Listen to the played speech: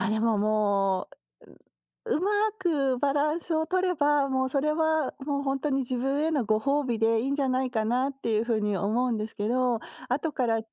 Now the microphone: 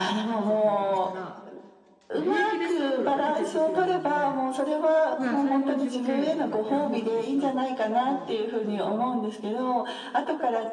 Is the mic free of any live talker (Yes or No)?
No